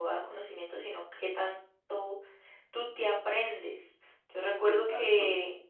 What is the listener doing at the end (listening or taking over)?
listening